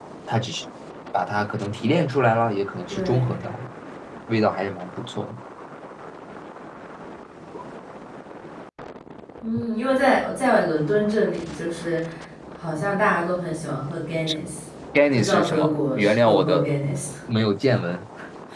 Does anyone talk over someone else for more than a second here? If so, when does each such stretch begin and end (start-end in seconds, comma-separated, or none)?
15.2-16.7